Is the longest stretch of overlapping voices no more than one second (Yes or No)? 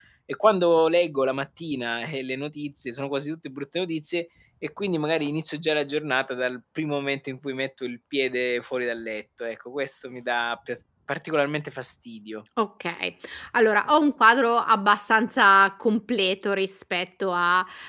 Yes